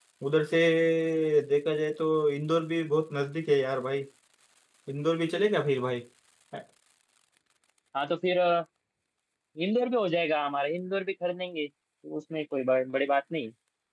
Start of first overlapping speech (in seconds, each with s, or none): none